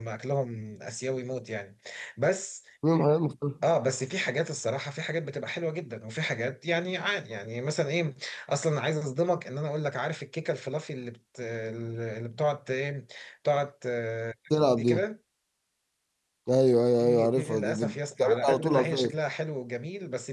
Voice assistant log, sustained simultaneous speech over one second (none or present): present